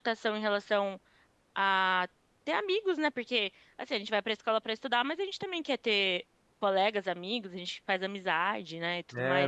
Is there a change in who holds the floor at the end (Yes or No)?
Yes